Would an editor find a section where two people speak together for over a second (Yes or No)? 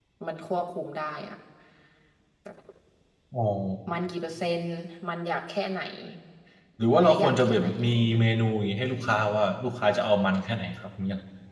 Yes